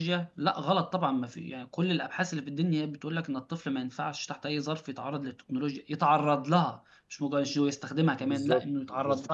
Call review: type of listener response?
taking over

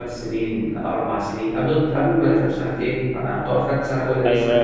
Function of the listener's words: taking over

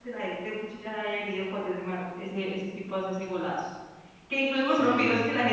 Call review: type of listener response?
listening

